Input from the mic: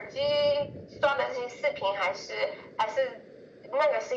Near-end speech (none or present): none